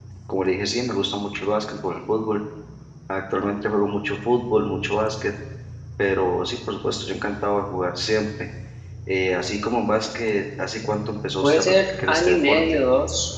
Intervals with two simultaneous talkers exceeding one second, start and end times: 11.4-12.8

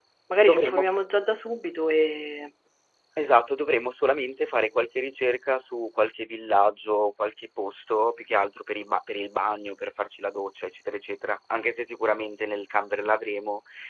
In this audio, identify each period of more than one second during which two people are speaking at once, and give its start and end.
none

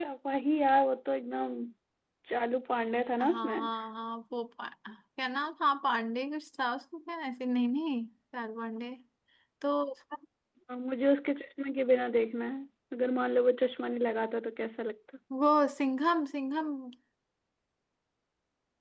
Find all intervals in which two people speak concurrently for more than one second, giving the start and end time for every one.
none

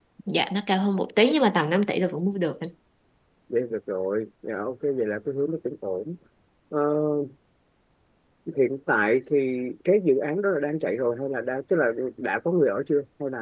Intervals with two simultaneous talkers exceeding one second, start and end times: none

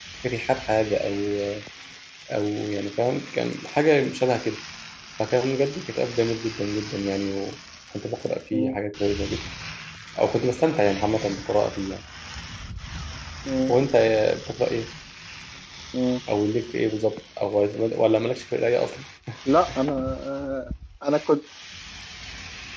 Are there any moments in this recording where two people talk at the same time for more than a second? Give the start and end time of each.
none

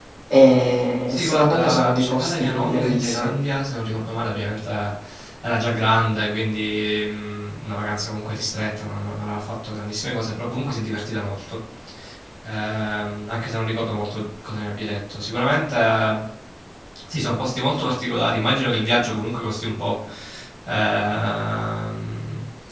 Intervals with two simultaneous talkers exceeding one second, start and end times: 1.1-3.3

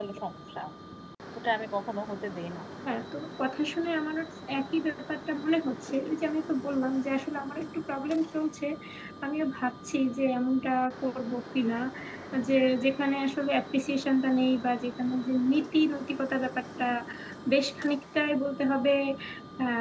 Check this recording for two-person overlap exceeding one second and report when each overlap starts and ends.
none

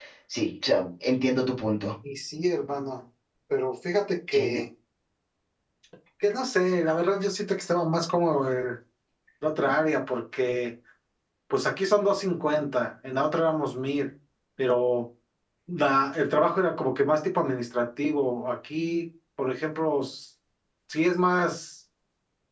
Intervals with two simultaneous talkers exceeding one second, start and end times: none

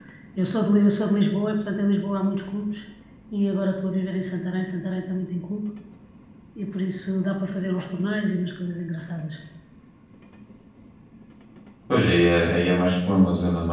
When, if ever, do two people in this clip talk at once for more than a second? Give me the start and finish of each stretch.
none

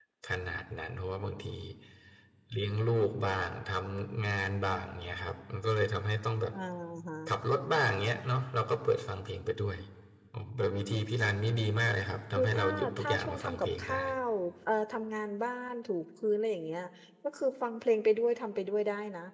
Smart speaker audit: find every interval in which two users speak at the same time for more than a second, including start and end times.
12.4-14.0

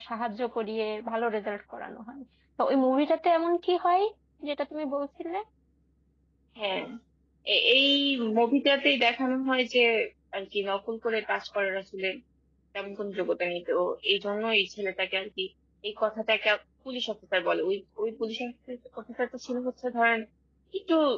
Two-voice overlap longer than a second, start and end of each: none

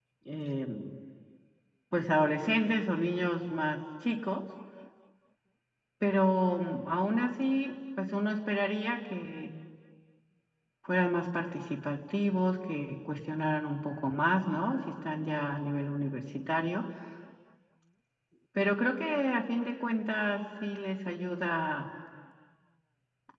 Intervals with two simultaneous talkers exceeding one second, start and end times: none

